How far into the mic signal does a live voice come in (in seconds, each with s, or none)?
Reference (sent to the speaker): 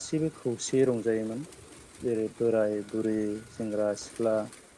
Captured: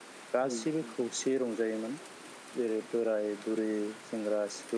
0.5 s